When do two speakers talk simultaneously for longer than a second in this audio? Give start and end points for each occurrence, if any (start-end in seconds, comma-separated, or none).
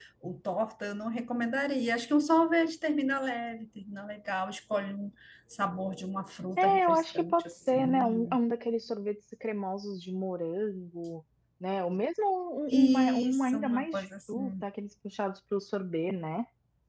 6.6-8.4, 12.7-14.5